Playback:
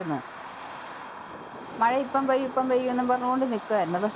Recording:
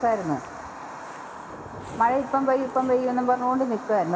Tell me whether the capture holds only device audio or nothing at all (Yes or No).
Yes